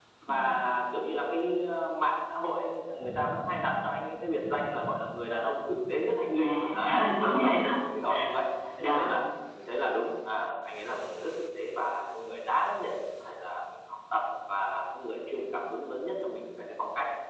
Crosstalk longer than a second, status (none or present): present